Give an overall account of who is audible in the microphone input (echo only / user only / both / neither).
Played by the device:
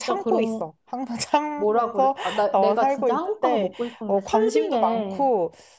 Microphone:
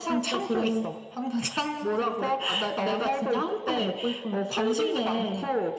echo only